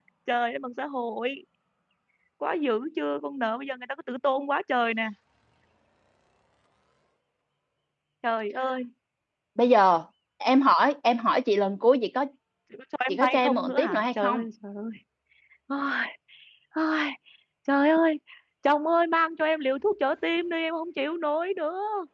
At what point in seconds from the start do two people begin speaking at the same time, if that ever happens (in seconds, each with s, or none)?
13.1 s